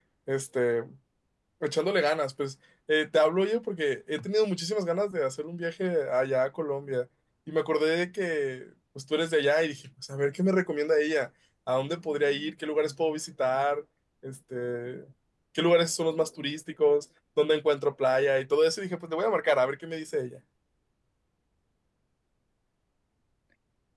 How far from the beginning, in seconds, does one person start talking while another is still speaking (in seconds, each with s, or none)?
none